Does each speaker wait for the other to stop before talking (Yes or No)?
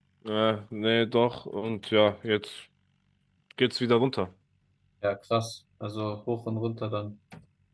Yes